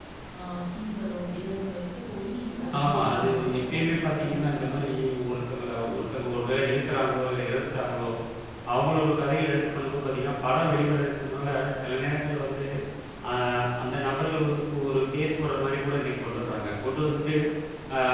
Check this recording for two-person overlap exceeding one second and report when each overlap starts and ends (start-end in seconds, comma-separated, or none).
2.8-4.9